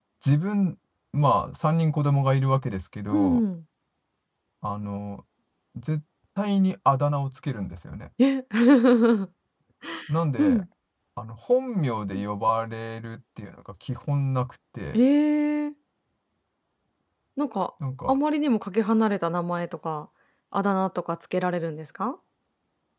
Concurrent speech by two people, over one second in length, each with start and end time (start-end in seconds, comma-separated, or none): none